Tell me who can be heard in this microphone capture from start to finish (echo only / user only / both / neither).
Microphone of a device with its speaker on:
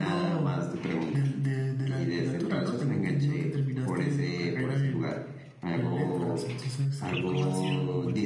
echo only